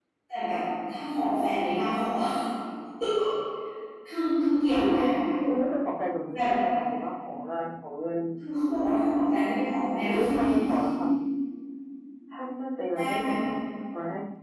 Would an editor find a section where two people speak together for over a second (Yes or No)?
No